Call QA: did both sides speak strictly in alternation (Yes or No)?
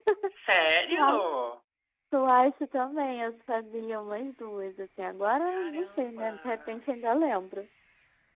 No